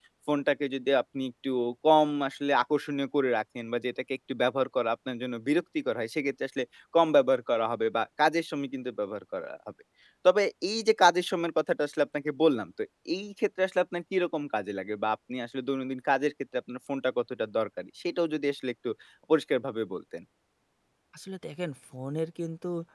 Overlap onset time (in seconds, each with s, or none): none